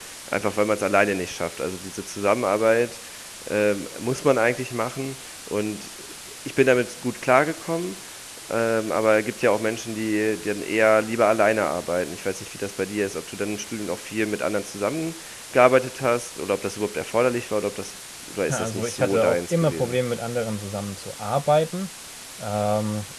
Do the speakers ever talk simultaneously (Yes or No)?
Yes